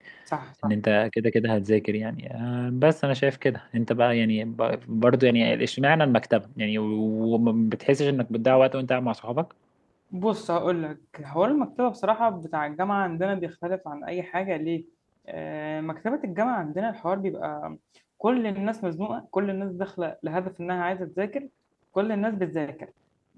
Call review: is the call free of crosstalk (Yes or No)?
Yes